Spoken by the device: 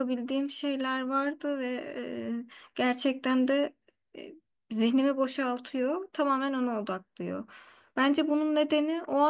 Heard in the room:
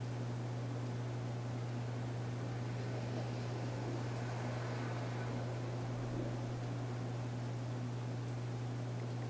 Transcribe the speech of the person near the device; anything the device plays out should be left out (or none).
none